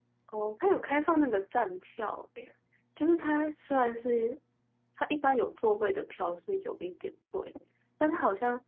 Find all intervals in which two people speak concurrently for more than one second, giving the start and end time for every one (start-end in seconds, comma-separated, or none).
none